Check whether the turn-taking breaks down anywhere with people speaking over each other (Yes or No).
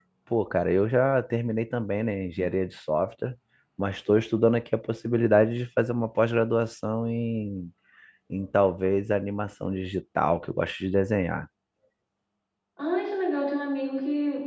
No